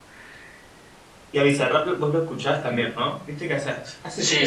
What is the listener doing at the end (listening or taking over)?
taking over